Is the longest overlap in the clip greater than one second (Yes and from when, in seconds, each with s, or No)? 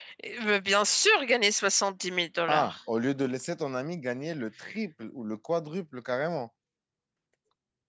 No